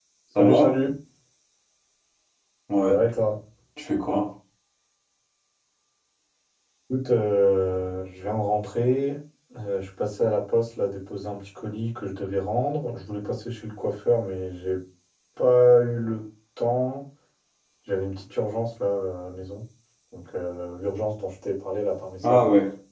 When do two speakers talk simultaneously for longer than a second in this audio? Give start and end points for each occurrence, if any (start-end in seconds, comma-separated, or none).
none